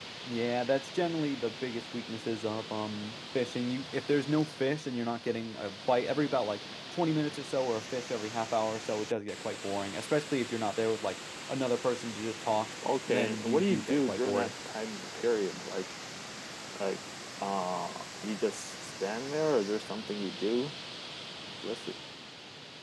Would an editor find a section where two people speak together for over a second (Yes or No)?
Yes